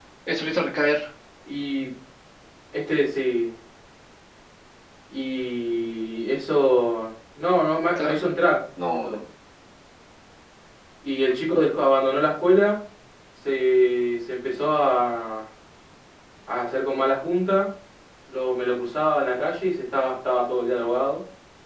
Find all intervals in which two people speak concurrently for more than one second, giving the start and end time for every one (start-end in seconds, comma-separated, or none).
none